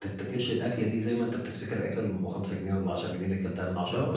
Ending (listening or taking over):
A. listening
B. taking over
B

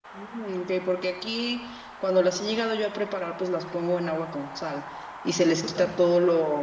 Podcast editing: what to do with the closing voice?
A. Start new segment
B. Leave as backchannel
B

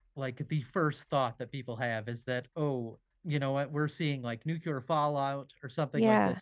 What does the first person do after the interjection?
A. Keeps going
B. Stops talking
A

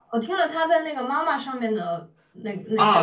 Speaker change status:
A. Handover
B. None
A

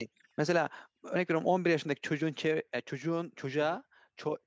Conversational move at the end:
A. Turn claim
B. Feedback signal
B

